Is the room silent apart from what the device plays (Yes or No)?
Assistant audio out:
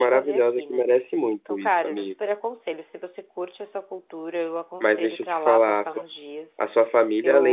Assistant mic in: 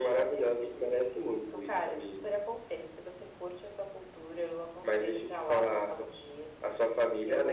Yes